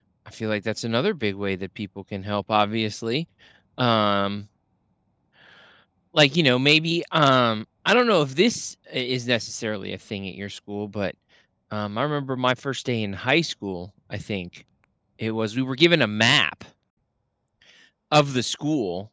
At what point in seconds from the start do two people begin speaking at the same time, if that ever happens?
none

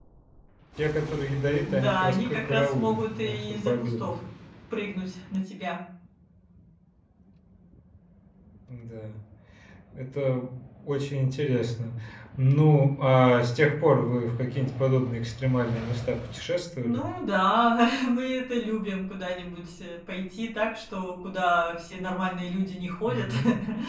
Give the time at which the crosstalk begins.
2 s

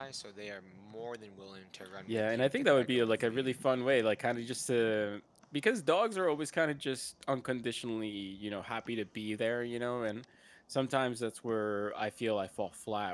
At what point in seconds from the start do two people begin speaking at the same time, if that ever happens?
2 s

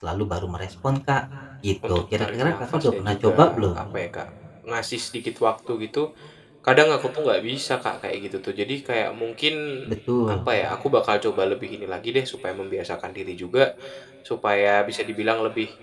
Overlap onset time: 2 s

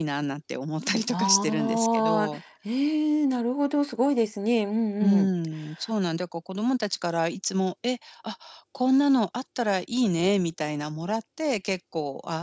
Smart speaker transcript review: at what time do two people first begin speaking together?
1 s

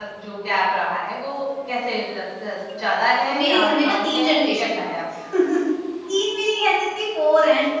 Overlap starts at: 3 s

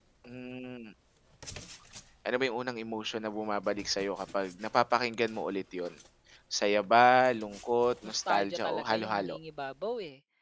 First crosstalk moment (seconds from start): 8 s

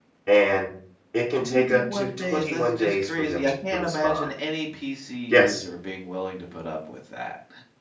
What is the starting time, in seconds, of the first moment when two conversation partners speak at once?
1 s

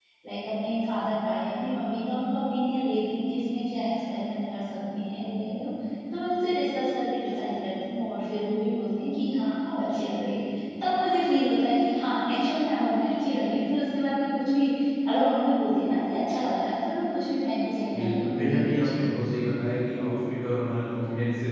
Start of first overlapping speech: 18 s

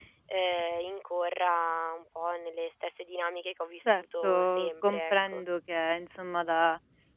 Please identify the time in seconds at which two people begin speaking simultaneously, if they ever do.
4 s

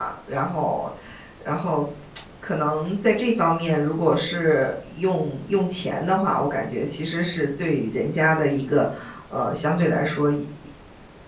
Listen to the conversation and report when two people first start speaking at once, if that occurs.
none

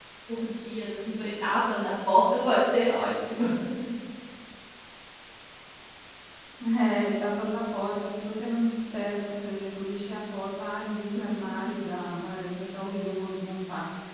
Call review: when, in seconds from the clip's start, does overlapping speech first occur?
none

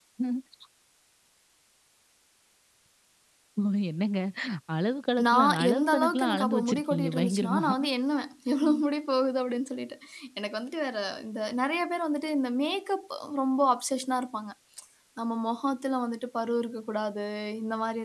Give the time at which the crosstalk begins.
5 s

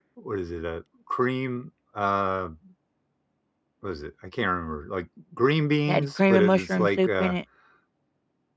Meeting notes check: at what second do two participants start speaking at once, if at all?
6 s

